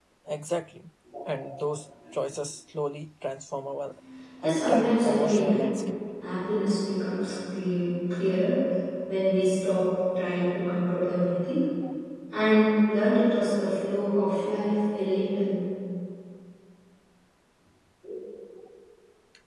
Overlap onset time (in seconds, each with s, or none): 4.4 s